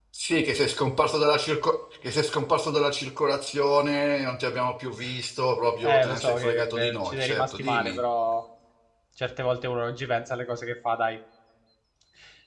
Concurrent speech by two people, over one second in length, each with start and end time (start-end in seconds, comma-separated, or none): 5.8-8.0